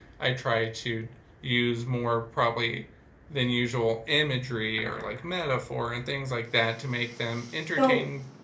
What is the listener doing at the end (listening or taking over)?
taking over